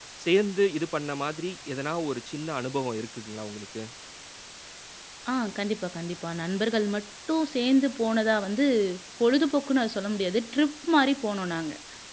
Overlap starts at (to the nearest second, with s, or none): none